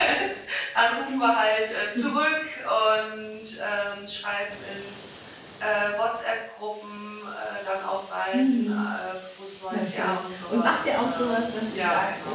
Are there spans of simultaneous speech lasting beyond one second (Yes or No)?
Yes